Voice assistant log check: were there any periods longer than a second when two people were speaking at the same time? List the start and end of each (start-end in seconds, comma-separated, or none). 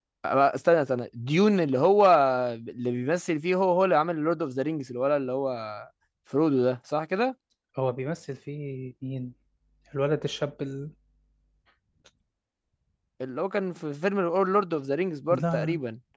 none